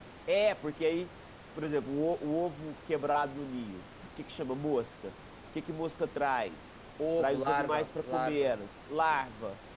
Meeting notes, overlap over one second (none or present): present